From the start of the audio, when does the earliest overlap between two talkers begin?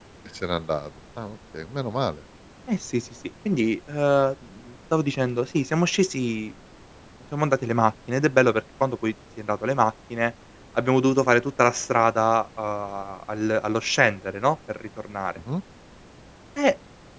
none

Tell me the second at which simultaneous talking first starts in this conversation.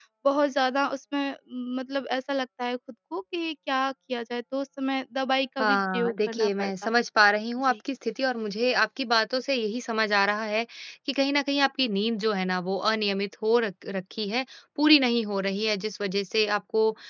6 s

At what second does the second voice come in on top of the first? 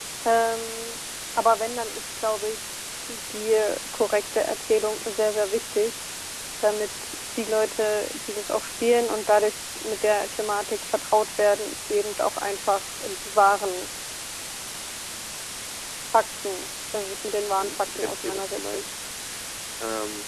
18 s

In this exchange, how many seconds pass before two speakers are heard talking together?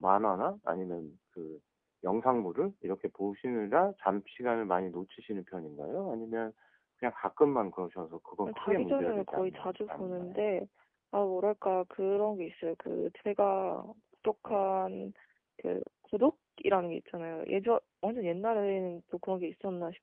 8 s

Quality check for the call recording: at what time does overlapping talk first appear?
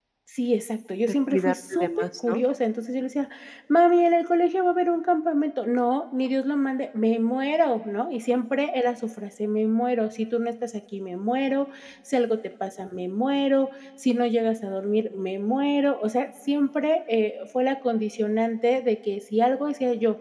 1 s

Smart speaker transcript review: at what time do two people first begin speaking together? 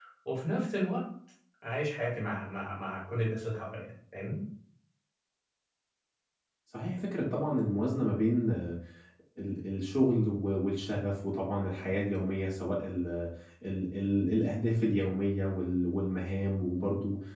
none

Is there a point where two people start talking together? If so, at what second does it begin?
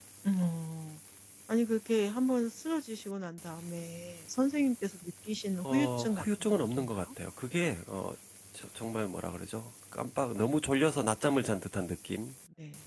6 s

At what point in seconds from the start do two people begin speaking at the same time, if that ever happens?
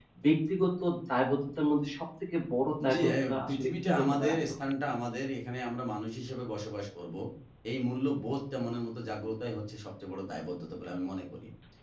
3 s

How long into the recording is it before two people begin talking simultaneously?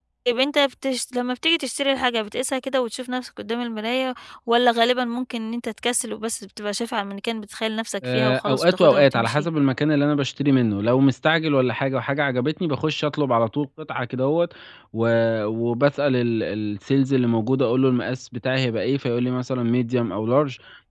8 s

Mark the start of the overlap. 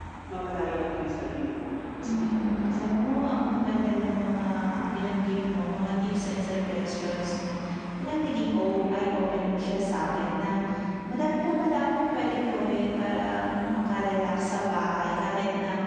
2 s

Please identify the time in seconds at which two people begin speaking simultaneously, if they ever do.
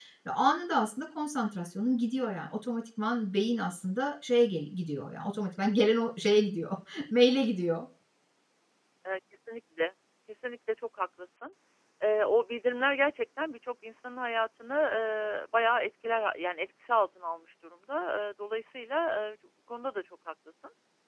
none

